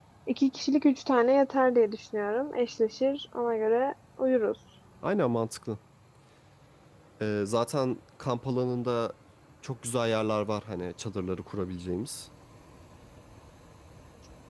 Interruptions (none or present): none